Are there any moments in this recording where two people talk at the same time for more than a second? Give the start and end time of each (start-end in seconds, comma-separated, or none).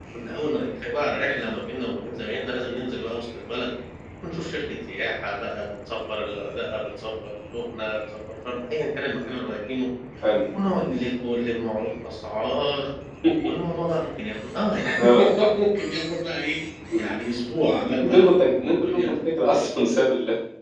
none